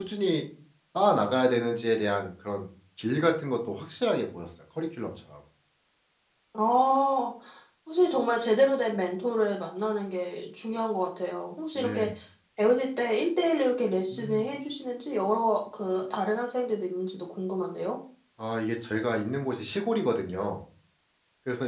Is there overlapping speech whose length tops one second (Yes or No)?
No